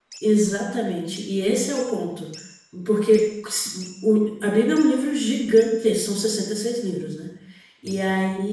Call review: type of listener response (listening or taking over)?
listening